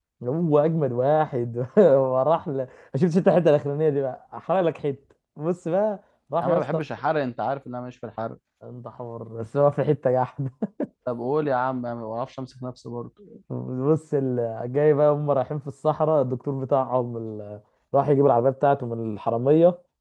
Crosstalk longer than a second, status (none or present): none